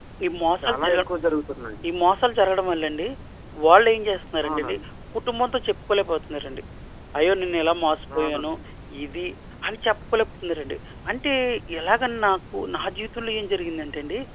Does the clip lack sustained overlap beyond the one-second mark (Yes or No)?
Yes